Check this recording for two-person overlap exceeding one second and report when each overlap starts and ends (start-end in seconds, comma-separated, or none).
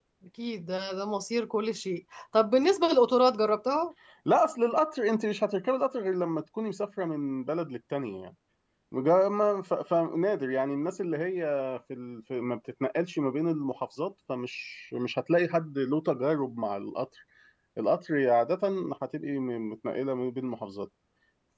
none